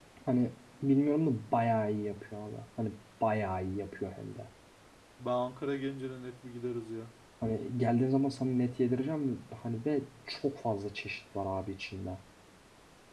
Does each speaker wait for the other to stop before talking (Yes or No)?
Yes